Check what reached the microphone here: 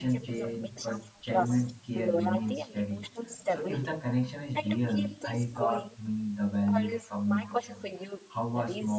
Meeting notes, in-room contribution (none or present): present